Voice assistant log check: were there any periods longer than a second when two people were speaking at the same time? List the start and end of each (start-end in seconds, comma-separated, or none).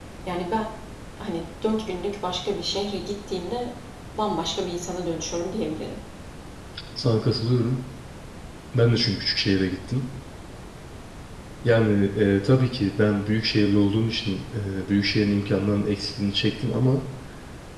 none